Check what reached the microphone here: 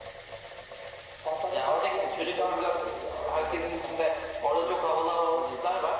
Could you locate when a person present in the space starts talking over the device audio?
none

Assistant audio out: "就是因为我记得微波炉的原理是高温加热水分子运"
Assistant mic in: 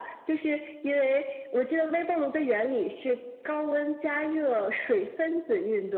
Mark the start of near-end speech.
none

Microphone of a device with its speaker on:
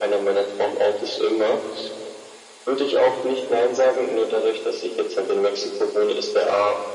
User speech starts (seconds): none

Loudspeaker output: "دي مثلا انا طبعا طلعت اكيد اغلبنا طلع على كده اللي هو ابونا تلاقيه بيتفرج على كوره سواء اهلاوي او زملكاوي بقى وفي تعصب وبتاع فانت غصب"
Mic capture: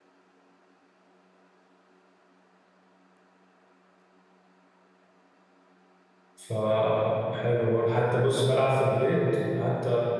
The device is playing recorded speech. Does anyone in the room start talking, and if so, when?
6.3 s

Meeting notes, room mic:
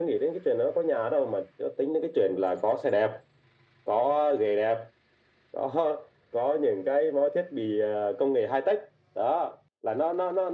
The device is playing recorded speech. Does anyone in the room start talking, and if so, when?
none

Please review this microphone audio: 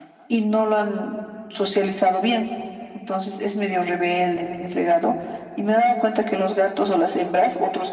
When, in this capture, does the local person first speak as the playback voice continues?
none

